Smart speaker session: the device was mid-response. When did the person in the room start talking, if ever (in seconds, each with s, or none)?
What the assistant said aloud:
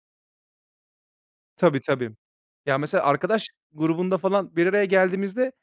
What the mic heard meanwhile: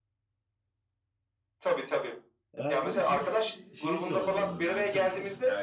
2.6 s